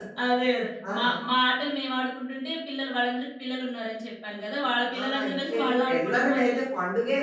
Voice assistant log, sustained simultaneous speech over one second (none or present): present